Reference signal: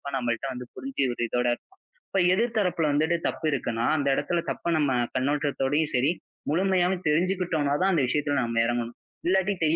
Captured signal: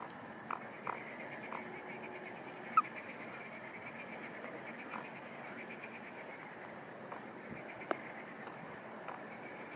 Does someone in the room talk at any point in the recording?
No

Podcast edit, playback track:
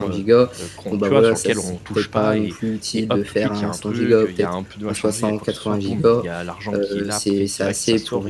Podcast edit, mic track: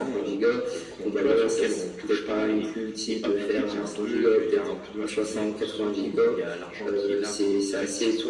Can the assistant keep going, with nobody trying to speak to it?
Yes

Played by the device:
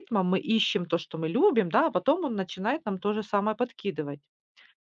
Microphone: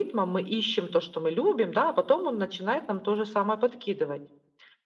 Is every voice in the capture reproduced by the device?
Yes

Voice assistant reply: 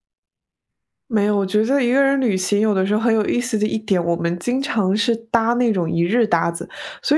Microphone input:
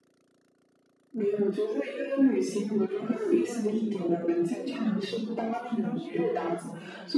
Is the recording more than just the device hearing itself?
Yes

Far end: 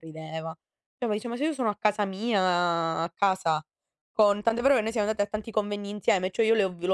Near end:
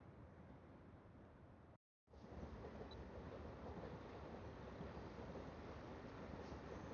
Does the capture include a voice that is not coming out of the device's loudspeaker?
No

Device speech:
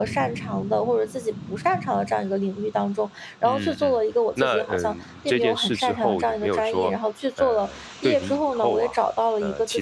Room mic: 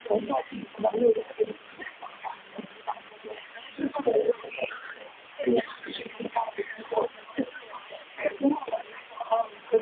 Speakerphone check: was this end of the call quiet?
Yes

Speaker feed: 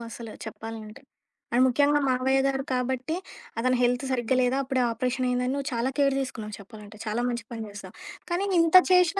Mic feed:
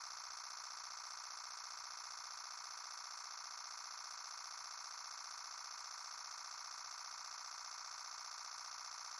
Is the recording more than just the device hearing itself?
No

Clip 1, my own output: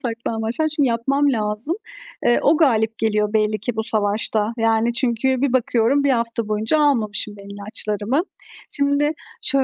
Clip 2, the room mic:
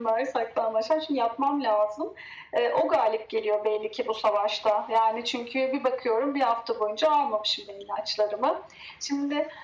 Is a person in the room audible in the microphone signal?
No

